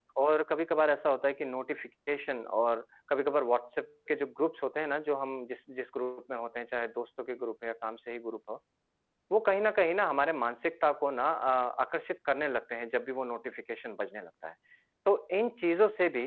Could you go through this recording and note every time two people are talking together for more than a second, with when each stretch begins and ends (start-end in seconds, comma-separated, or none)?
none